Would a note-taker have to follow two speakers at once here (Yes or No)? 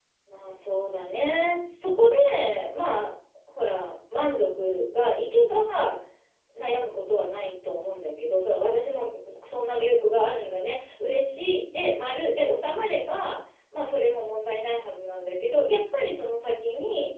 No